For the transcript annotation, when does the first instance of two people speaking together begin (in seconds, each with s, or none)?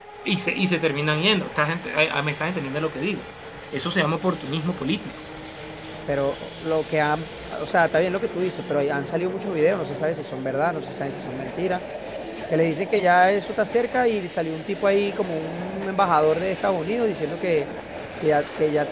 none